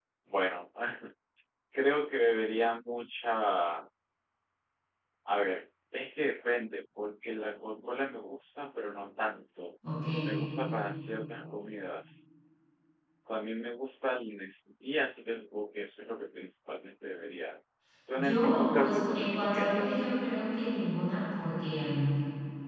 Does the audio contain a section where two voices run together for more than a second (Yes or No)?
Yes